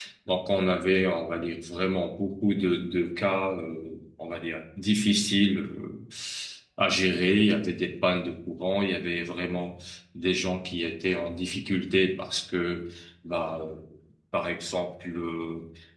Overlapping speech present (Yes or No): No